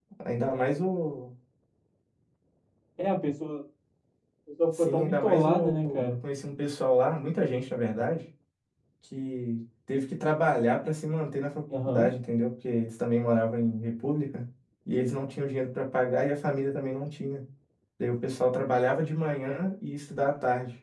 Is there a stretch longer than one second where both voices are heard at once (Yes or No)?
Yes